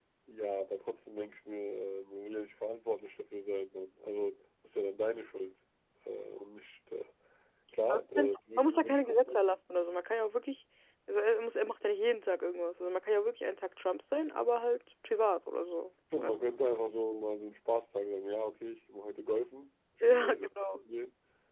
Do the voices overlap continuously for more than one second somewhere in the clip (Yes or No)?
Yes